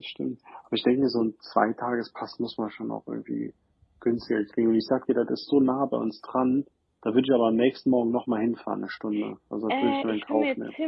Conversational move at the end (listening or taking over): taking over